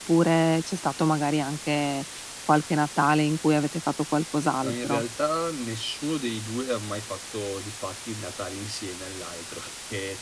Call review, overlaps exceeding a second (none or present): none